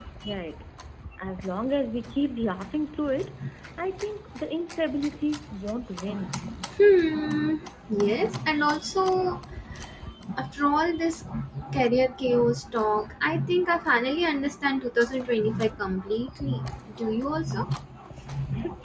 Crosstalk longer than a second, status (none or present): none